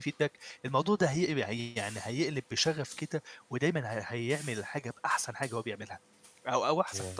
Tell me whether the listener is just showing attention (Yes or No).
Yes